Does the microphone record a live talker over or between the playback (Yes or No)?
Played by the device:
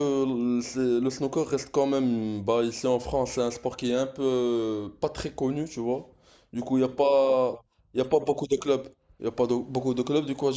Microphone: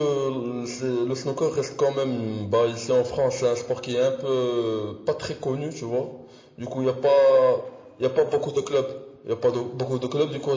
No